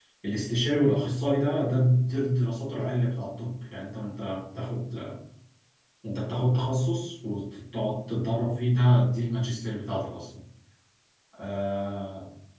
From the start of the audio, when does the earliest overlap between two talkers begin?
none

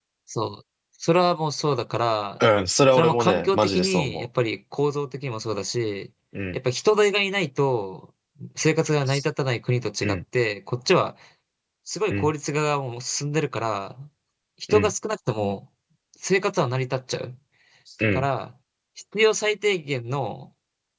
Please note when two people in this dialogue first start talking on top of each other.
2.9 s

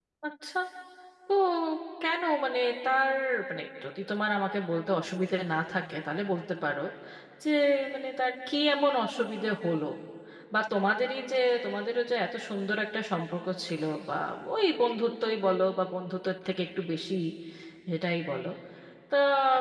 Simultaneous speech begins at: none

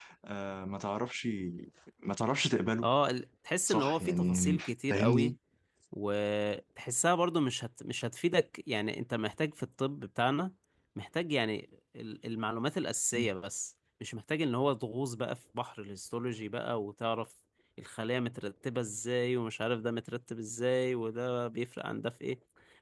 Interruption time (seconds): 3.7 s

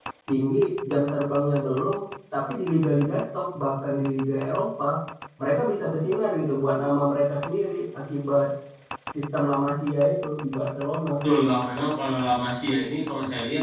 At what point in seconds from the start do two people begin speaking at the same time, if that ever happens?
none

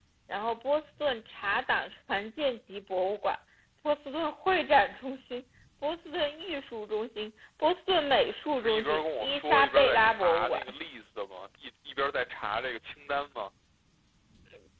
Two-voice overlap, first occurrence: 8.5 s

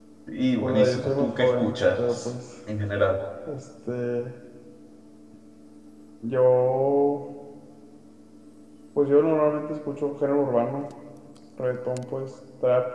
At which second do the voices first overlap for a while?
0.6 s

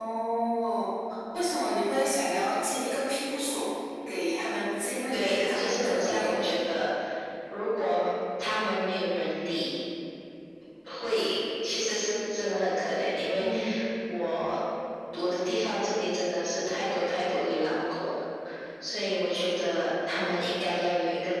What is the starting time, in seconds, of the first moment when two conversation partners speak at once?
5.1 s

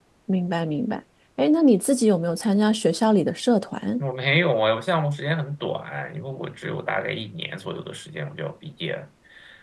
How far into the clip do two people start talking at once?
none

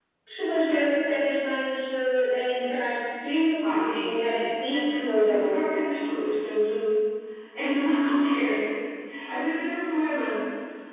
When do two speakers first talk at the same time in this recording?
3.6 s

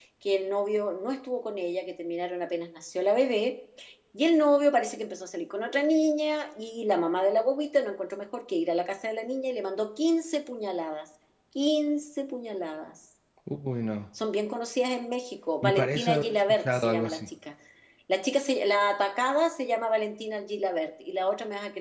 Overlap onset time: 15.6 s

